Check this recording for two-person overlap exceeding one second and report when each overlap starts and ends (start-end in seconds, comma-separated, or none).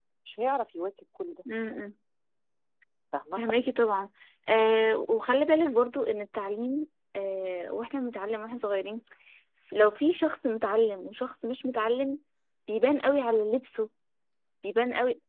none